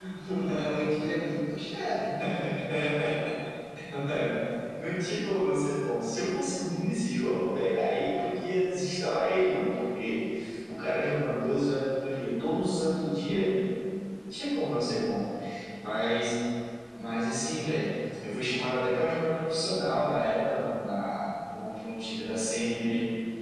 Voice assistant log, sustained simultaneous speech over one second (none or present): none